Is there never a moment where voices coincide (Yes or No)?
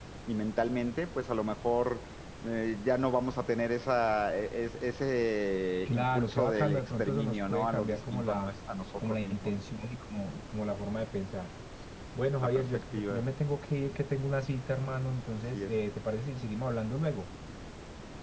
No